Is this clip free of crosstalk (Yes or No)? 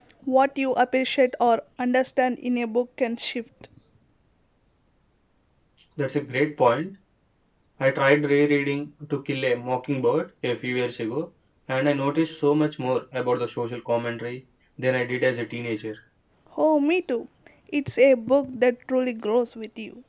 Yes